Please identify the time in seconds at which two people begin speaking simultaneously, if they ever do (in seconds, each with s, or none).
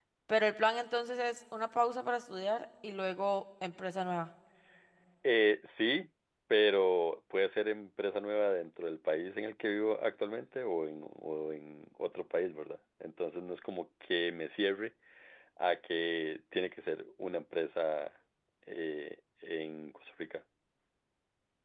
none